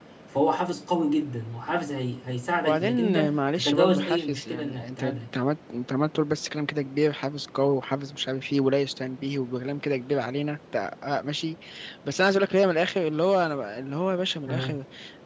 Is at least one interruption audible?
Yes, from 2.6 s

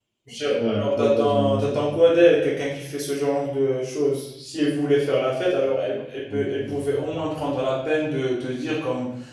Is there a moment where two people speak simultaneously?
Yes, from 0.5 s

